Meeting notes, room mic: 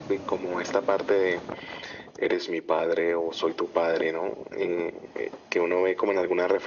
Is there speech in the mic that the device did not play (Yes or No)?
No